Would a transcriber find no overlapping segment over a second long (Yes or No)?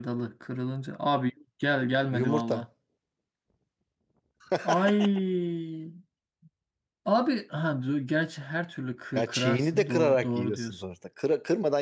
No